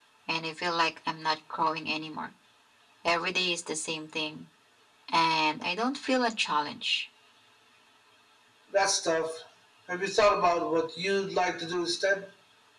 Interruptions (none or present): none